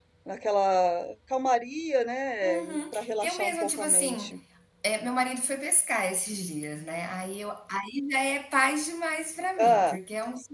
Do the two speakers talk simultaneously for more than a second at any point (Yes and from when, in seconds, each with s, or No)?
Yes, from 2.4 s